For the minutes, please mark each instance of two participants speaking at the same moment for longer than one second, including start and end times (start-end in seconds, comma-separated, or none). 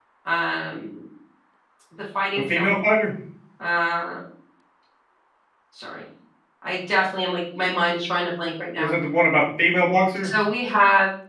none